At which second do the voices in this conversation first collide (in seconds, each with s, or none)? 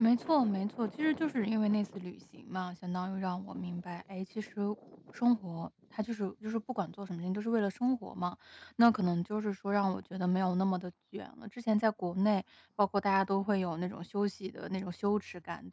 none